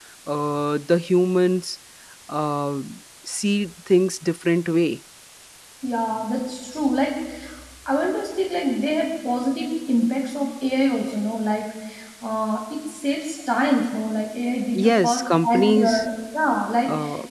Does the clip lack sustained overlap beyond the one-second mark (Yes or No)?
No